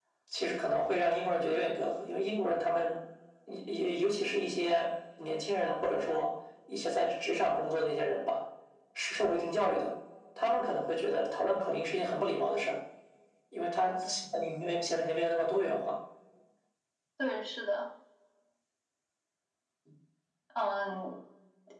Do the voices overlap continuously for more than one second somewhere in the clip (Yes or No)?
No